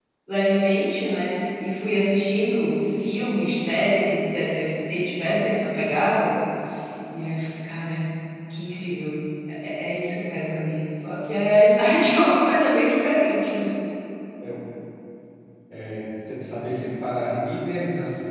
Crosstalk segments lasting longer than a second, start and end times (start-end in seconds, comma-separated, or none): none